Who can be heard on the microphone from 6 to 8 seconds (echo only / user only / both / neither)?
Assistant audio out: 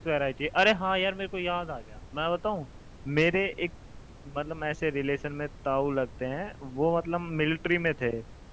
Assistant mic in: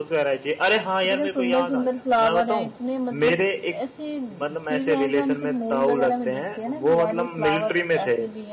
both